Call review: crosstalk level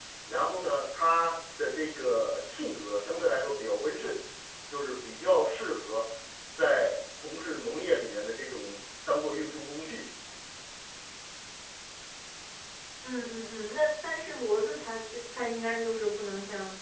none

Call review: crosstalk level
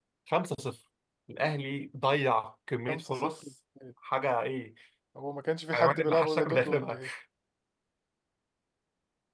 present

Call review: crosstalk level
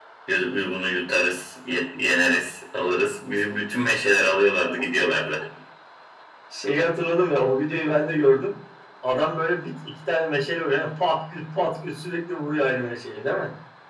none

